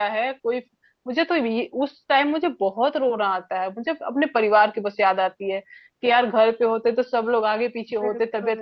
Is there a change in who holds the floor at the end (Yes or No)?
No